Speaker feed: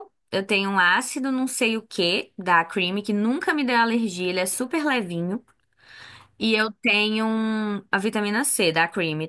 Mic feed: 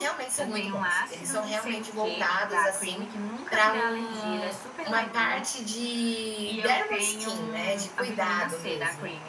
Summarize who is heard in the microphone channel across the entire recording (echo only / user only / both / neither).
both